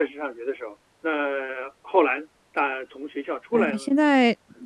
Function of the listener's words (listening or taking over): taking over